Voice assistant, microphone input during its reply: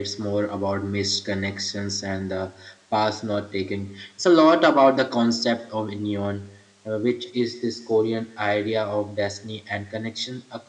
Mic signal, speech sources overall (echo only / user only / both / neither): echo only